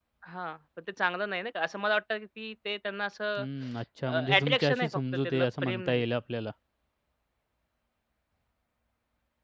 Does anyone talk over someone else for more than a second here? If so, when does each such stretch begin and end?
4.4-6.0

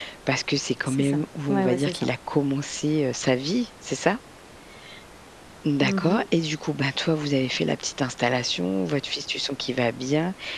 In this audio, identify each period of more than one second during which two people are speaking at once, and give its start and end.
0.8-2.1

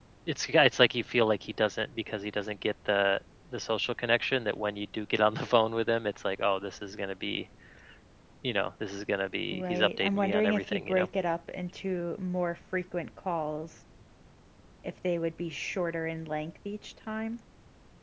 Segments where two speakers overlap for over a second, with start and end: 9.5-11.1

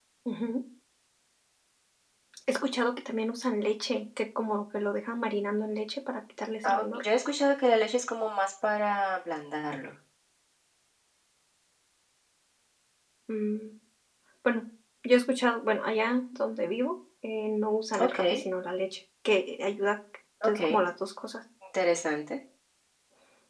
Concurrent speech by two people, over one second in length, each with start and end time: none

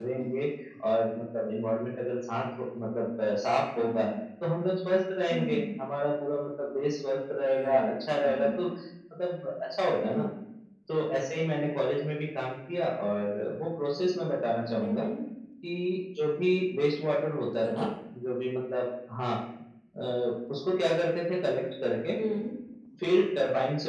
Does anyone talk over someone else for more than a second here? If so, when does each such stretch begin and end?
none

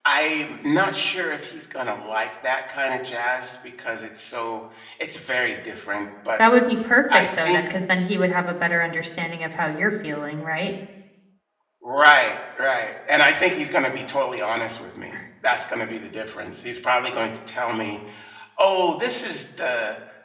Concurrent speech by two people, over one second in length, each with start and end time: none

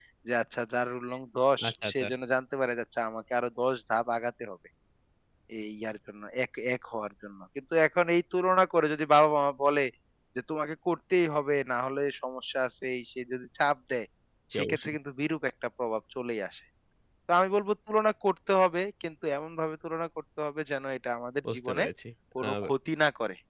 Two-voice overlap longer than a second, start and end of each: none

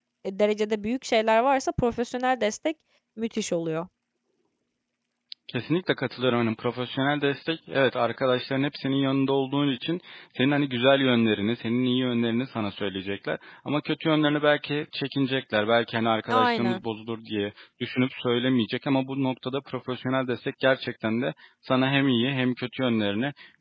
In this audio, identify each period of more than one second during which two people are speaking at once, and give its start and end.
none

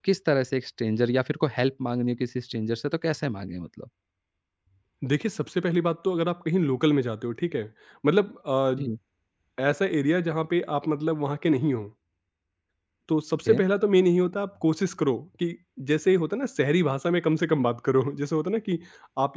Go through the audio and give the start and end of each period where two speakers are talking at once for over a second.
none

